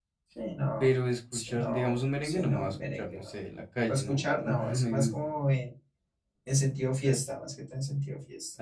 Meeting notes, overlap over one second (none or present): present